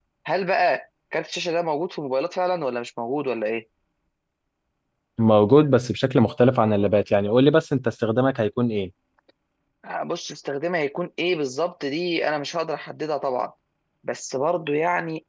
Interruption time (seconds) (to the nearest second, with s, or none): none